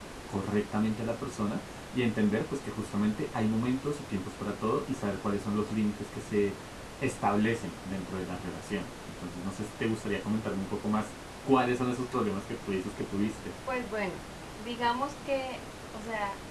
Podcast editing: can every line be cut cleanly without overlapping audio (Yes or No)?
Yes